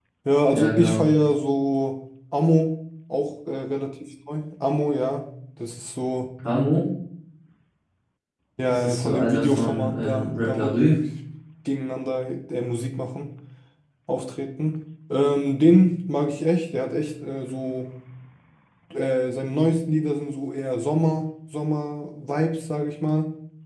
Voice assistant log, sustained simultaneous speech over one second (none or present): present